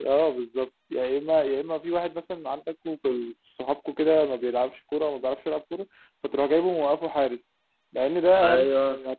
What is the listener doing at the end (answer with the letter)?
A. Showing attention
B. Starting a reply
A